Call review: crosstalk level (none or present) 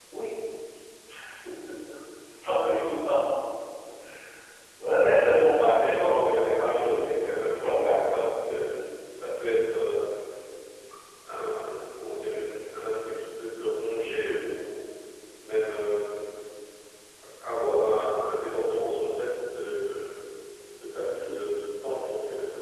present